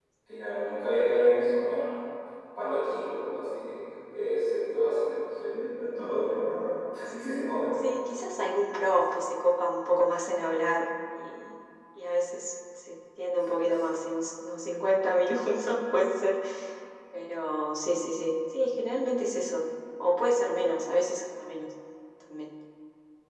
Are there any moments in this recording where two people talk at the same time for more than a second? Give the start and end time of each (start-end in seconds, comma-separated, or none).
none